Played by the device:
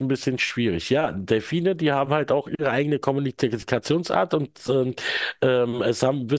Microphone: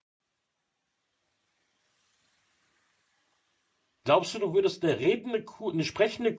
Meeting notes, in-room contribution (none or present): present